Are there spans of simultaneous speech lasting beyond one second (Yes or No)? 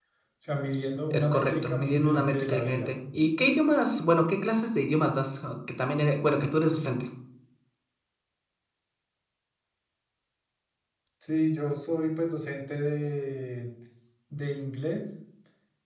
Yes